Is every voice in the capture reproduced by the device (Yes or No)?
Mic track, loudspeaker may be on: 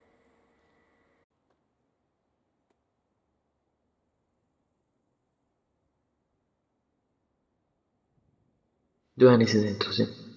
No